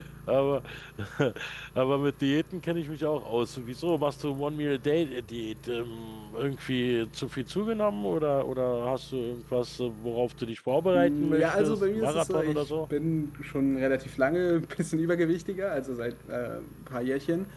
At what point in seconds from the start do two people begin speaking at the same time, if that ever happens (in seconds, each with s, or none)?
10.9 s